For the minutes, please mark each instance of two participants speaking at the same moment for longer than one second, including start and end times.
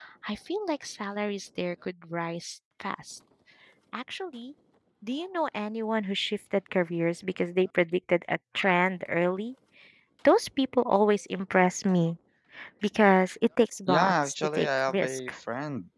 13.9-15.3

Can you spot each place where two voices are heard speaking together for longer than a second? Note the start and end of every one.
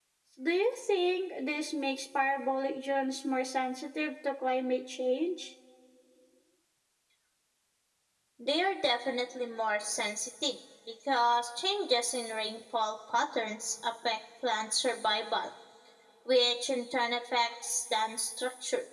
none

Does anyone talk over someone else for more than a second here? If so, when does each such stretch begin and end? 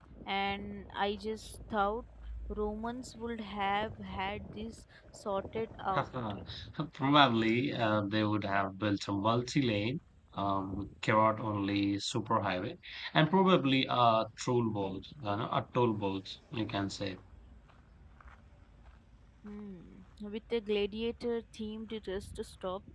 none

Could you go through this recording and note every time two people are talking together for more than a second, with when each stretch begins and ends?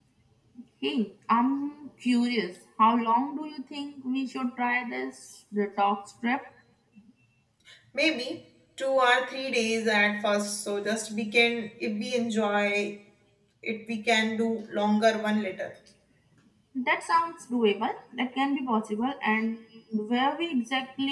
none

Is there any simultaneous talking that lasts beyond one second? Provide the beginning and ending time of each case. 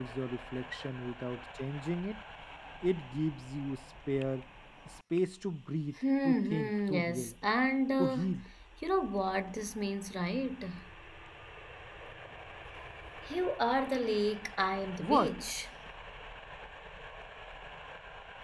6.0-7.3

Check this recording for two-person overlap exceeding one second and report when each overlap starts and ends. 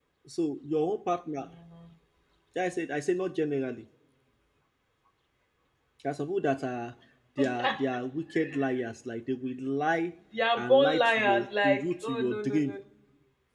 10.6-12.8

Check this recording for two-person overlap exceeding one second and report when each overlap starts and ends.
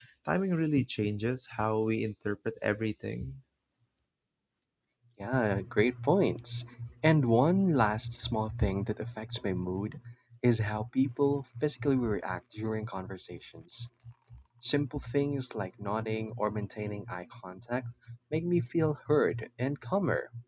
none

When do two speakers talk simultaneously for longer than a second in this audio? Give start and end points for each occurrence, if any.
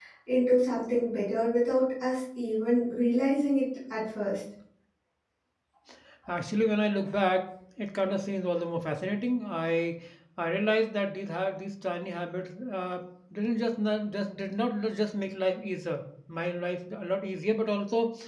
none

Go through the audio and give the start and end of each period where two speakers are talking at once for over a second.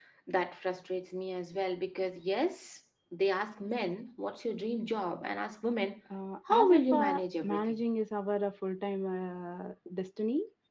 6.5-7.7

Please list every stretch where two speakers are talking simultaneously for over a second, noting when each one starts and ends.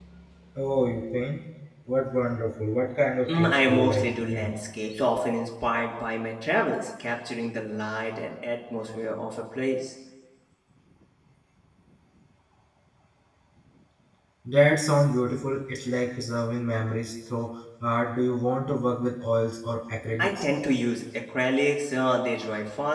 3.3-4.5

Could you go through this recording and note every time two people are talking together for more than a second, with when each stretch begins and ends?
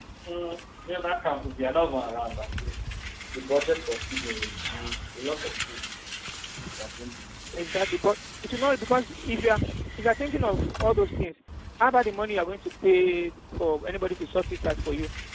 none

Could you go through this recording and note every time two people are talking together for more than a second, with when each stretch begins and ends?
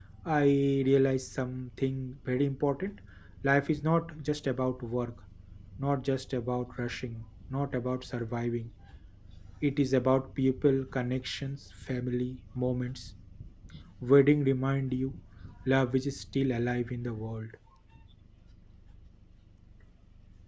none

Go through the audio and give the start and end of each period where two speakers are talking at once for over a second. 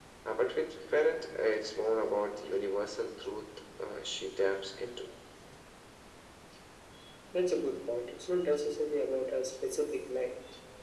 none

